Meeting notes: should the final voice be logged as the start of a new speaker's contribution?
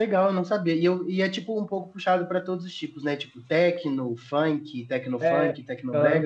Yes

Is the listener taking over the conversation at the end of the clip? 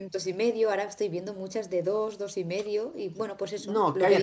Yes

